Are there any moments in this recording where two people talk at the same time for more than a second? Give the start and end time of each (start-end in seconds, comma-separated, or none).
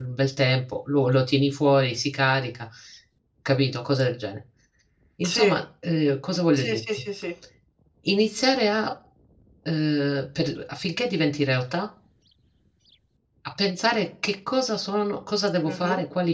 none